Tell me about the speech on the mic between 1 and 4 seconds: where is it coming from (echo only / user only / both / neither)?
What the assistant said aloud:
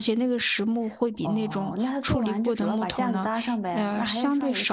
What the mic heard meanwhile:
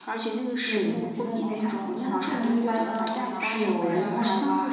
both